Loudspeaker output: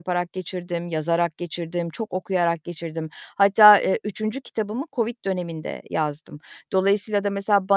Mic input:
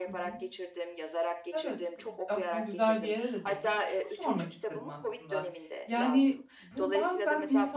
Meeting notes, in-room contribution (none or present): present